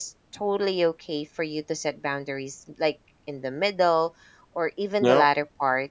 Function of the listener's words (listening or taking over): listening